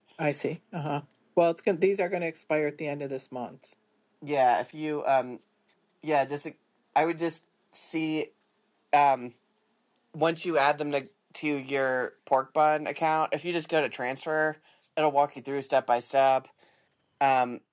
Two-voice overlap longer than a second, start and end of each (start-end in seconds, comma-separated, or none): none